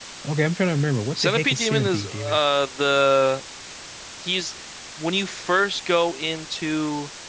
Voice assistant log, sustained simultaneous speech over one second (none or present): present